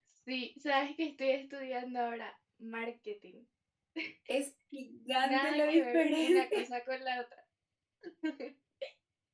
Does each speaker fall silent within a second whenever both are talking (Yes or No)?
No